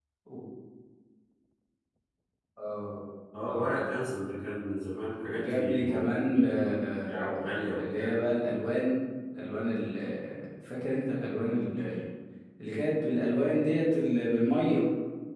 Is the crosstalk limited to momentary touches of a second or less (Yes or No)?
No